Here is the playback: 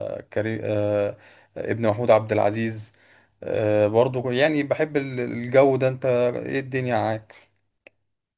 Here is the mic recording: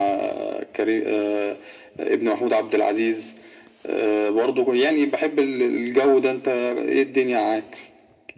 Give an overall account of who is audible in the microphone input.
echo only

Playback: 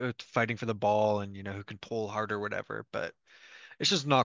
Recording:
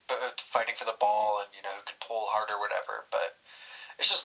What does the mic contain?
echo only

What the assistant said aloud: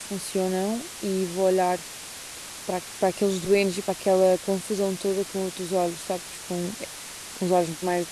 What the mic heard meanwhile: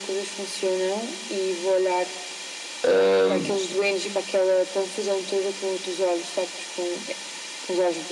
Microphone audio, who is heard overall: both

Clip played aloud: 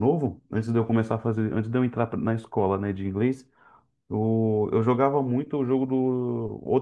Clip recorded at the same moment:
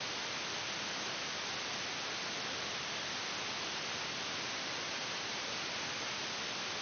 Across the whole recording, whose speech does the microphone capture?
neither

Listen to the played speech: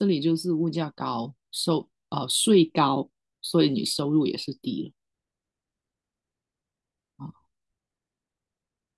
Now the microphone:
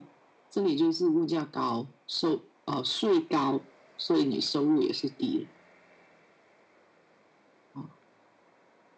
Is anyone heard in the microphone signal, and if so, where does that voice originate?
echo only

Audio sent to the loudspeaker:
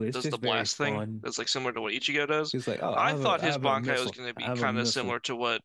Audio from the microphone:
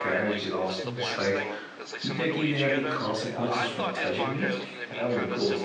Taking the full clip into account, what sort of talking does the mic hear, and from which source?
both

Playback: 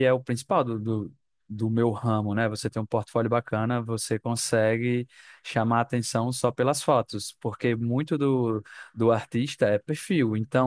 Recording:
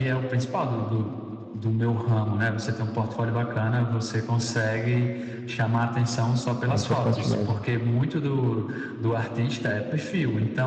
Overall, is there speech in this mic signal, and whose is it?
both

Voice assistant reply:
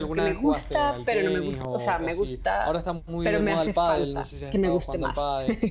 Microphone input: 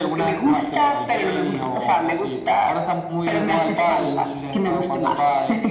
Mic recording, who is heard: echo only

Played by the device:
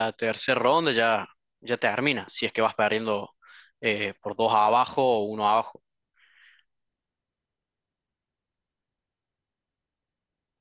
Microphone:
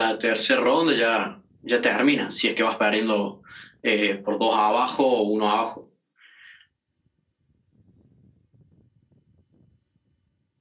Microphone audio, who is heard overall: echo only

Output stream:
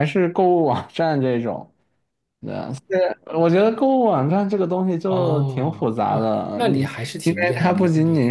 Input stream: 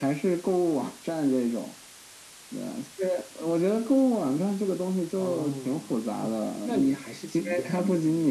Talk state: echo only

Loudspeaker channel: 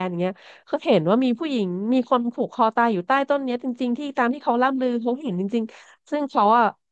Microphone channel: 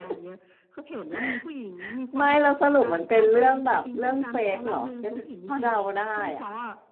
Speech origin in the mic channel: both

